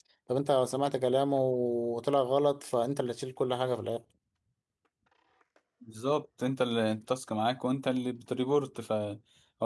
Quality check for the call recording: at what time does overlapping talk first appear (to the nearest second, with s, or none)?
none